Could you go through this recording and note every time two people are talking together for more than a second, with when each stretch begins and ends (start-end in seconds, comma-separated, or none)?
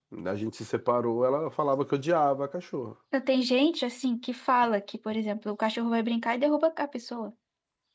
none